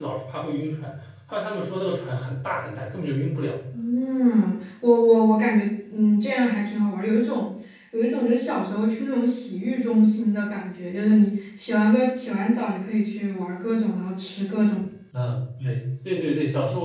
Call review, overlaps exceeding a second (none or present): none